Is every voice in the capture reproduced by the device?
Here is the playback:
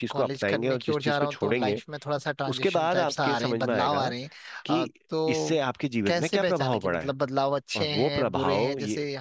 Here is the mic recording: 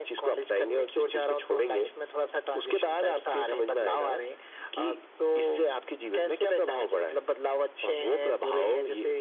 Yes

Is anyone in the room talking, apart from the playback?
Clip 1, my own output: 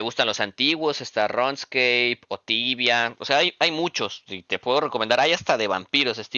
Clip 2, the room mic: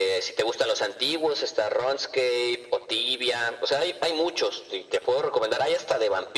No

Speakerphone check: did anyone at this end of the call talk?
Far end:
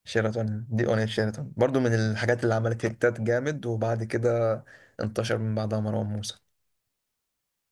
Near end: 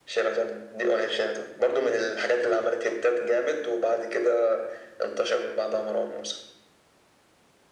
No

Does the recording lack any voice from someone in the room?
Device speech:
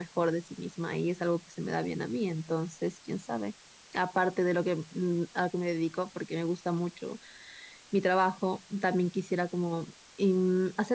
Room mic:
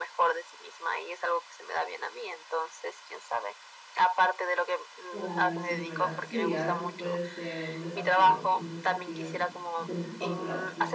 No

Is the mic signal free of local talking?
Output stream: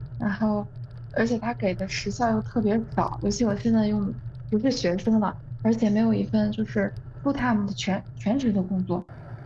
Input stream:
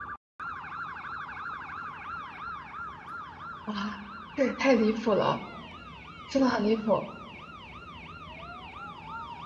No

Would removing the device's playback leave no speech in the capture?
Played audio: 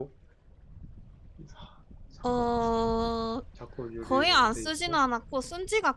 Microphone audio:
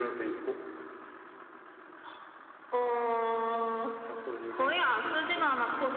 Yes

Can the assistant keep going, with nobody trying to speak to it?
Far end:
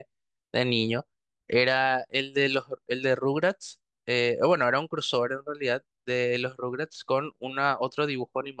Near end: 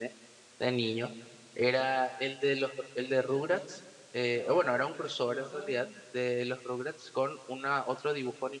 No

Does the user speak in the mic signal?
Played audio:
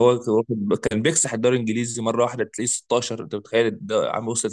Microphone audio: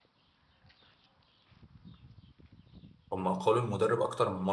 Yes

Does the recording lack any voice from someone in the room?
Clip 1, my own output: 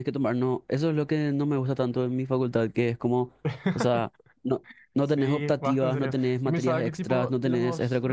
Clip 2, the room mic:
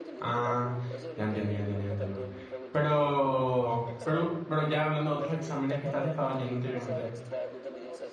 No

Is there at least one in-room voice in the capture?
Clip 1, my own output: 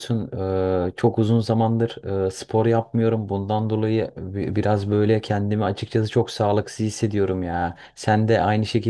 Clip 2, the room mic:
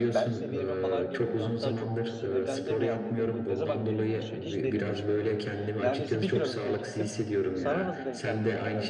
Yes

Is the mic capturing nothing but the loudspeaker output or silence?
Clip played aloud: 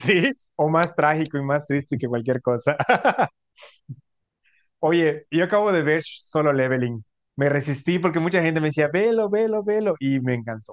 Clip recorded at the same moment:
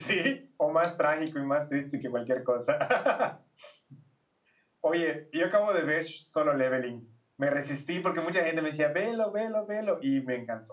Yes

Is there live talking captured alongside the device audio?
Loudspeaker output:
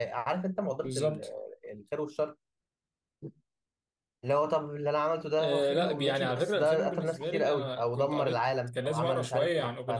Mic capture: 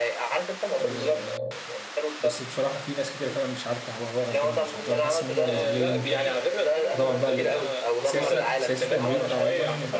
Yes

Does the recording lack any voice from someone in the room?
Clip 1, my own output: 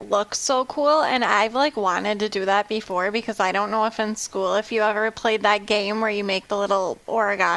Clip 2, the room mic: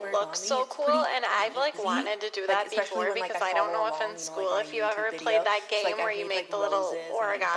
No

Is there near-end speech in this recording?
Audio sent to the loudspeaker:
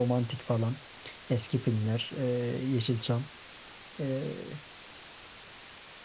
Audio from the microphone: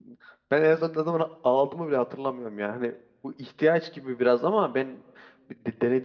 Yes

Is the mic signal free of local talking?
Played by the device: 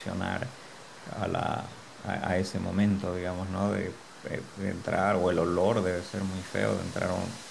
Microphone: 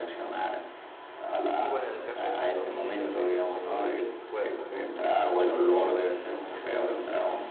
No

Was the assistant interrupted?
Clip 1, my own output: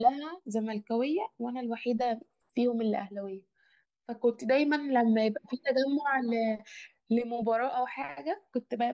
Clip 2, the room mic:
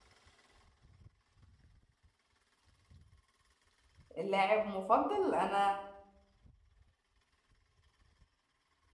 Yes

